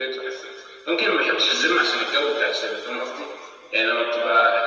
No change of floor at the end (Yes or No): Yes